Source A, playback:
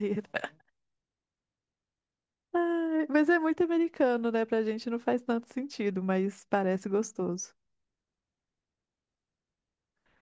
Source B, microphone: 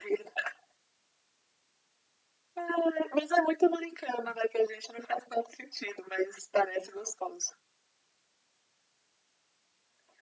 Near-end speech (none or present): none